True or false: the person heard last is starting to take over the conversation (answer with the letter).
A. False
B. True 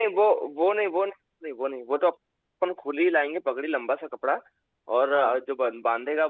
A